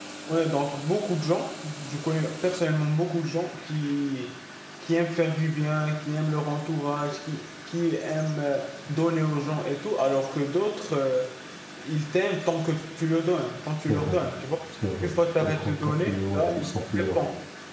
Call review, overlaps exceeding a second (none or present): present